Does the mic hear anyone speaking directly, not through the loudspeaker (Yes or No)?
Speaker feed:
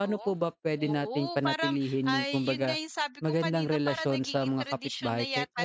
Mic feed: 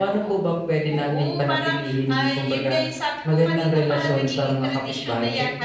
No